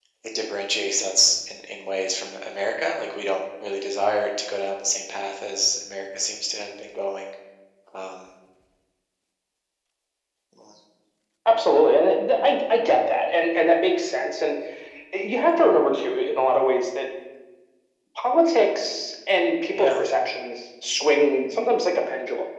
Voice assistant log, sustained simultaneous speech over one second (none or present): none